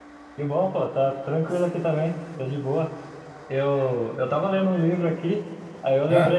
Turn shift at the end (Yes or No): No